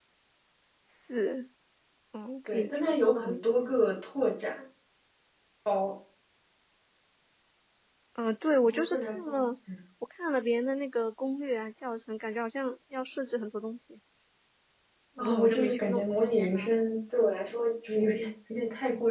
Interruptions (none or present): present